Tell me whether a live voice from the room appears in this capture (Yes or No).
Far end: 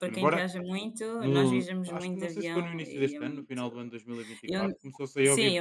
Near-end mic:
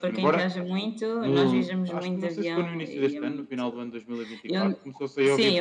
No